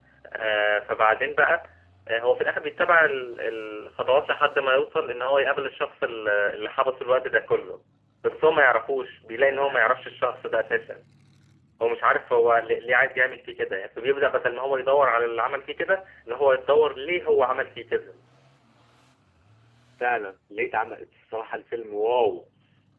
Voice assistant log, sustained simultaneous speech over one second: none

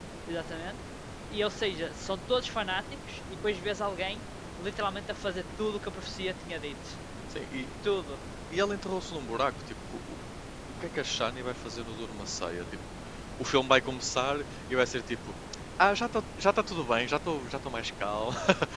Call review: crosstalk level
none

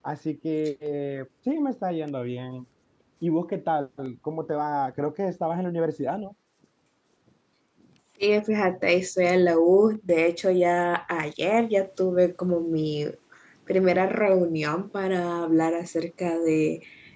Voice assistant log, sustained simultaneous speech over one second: none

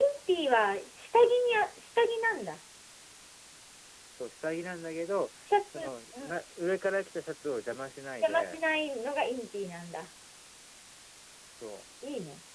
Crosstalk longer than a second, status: none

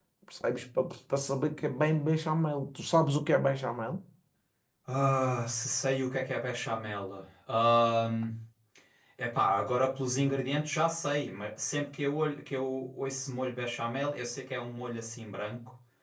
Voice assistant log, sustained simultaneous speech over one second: none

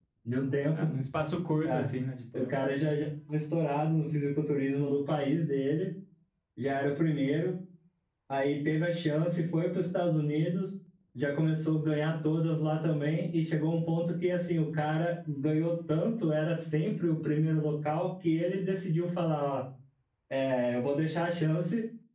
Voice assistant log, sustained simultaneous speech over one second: none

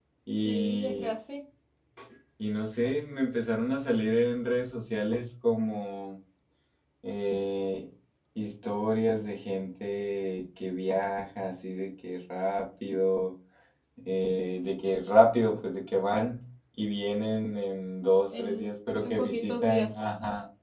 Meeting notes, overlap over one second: present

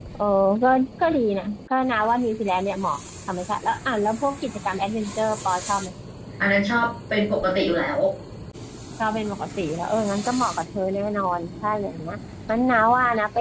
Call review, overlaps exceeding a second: none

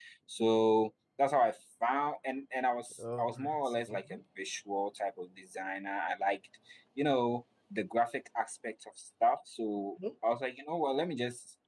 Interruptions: present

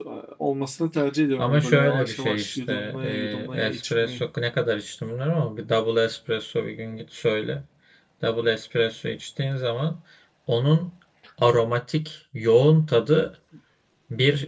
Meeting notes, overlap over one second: present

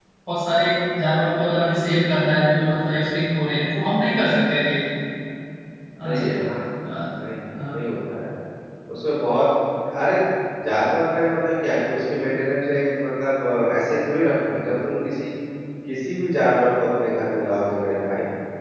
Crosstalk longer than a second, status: none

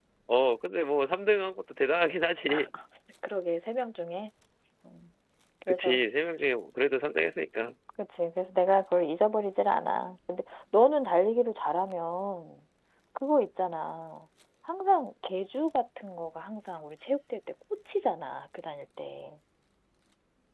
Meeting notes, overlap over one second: none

